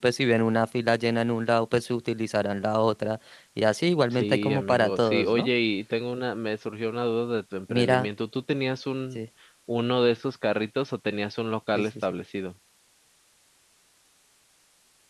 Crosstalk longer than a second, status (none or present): present